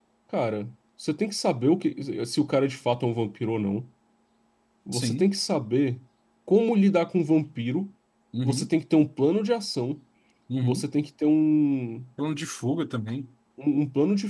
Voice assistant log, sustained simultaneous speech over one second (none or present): none